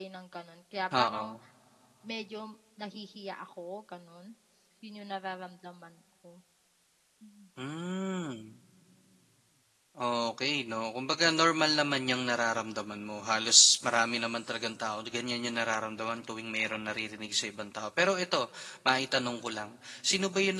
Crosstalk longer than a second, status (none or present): none